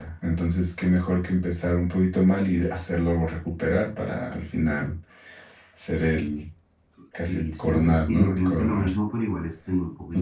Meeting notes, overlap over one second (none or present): present